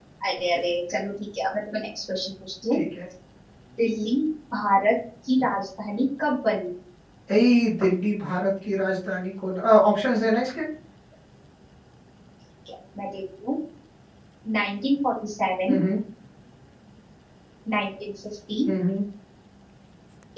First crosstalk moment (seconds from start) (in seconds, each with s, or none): none